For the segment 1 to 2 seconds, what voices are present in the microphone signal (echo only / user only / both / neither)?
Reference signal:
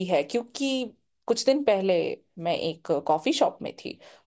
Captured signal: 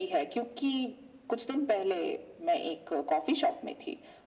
echo only